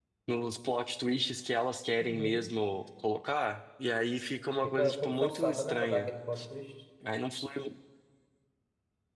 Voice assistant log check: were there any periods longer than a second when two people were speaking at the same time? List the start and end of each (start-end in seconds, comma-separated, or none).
4.6-6.1